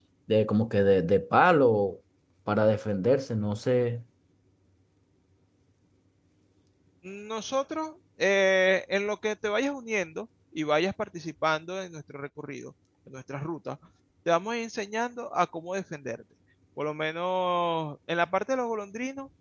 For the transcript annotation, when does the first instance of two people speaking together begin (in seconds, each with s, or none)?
none